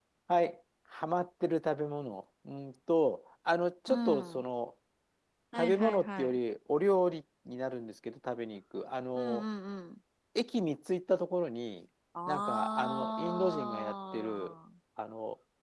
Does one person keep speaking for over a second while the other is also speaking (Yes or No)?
Yes